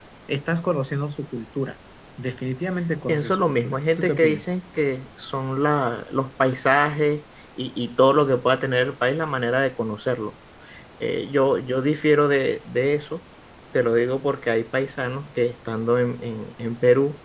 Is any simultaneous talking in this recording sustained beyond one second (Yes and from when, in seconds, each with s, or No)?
Yes, from 3.1 s